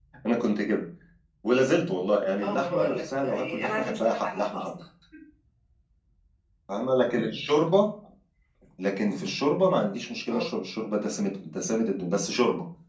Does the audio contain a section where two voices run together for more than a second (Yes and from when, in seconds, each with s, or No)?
Yes, from 2.4 s